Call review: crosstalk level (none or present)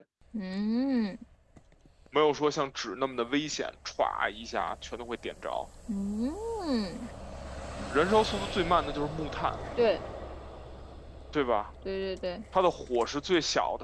none